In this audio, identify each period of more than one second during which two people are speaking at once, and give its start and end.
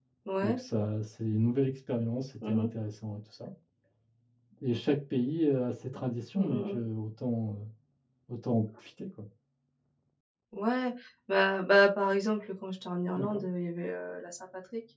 none

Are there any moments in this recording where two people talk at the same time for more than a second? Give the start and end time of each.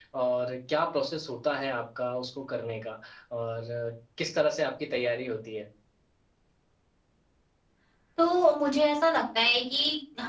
none

